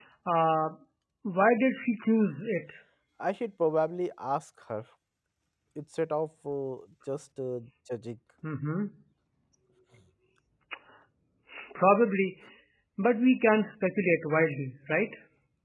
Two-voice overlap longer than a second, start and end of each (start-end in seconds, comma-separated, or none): none